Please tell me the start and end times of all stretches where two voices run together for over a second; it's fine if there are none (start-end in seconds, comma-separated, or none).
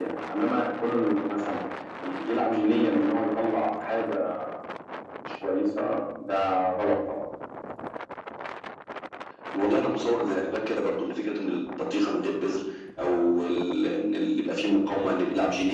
none